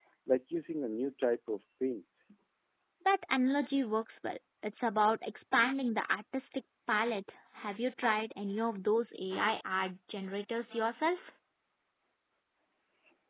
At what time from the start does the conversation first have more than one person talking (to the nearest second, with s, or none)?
none